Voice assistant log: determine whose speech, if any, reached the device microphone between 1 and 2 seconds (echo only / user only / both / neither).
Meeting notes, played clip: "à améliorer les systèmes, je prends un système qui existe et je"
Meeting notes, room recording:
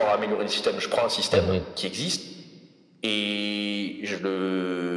both